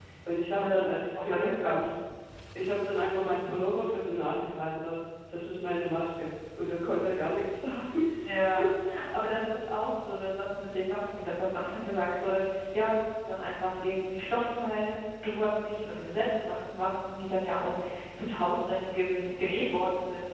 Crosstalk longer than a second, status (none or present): present